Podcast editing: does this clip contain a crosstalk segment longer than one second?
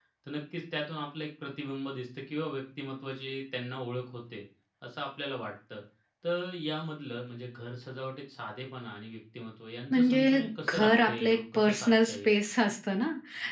Yes, from 9.9 s

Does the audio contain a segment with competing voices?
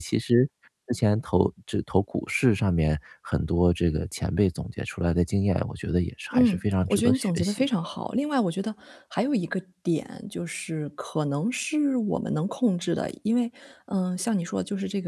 Yes, from 6.3 s

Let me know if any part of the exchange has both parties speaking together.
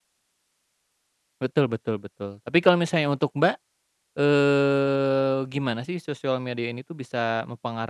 No

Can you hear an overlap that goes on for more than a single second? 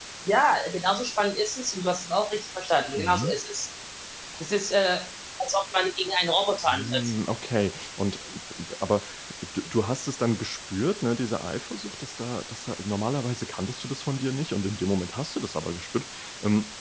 No

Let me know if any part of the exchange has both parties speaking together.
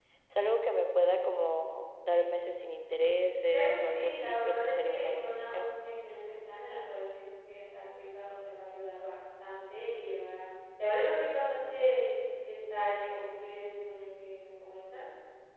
Yes, from 3.5 s

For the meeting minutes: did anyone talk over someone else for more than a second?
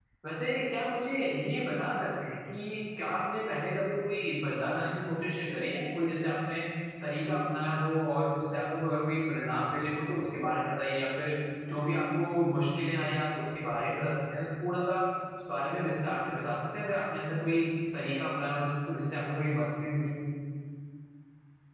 No

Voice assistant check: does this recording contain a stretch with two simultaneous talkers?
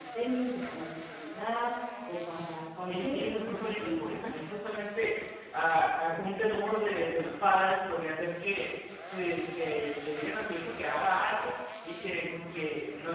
Yes, from 2.8 s

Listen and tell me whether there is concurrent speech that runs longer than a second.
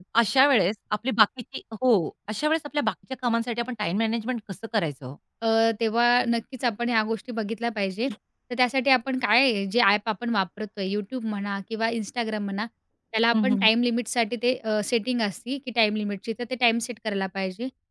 No

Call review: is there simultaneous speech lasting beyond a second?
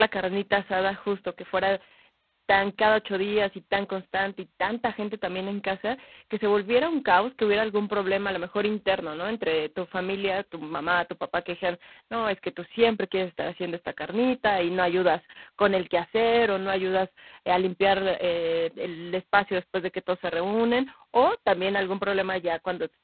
No

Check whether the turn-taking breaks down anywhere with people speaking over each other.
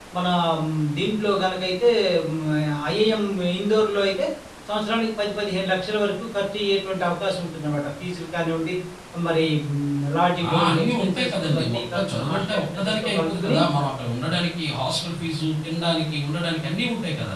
Yes, from 10.4 s

